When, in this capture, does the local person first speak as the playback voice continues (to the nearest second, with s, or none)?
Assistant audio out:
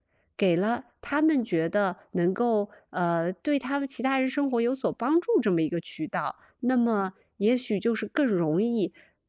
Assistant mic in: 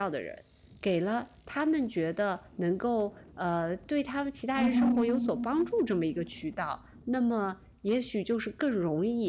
5 s